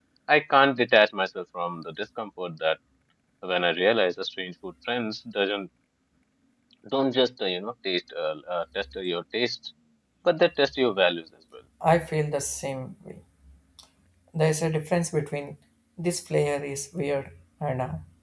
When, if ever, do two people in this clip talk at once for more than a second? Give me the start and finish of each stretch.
none

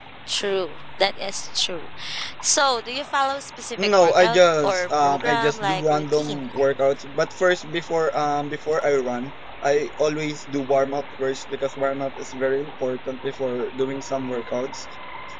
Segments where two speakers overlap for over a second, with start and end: 4.0-6.4

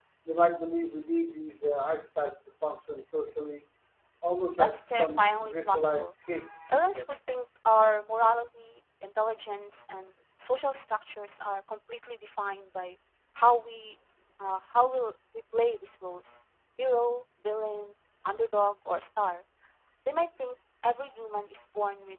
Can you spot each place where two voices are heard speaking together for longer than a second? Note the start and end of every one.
4.6-6.1

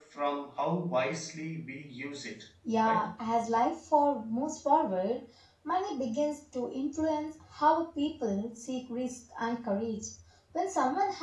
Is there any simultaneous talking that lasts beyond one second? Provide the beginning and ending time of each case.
none

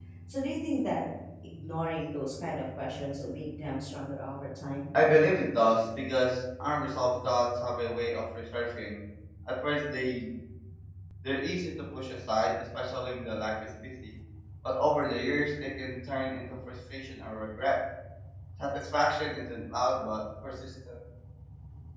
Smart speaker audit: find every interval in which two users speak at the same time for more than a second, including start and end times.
none

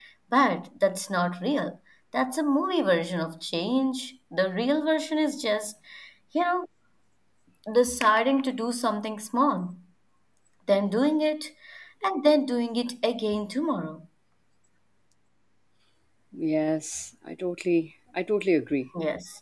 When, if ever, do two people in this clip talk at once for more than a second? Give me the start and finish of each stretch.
none

